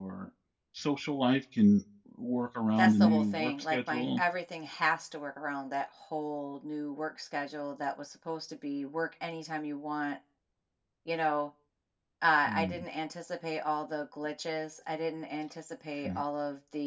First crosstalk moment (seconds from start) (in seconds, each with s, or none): 2.8 s